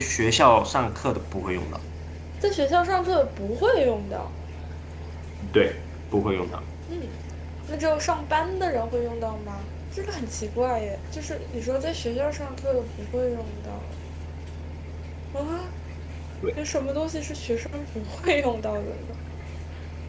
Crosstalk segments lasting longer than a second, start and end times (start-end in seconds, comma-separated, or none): none